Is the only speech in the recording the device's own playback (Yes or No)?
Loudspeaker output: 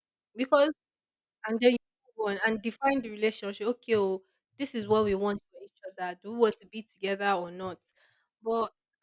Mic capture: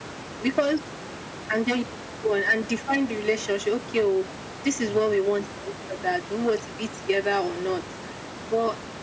Yes